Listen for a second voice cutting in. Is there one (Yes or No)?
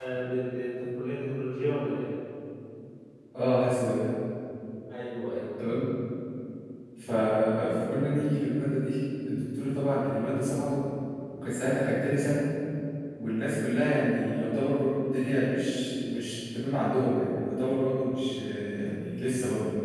No